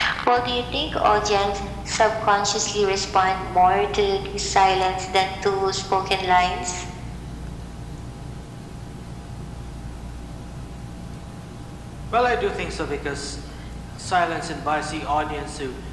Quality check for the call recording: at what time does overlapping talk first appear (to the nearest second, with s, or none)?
none